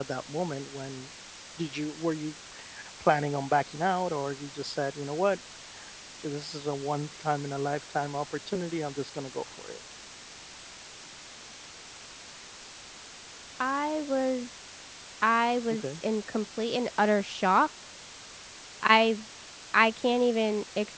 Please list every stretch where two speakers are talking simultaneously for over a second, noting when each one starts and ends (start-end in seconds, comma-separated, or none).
none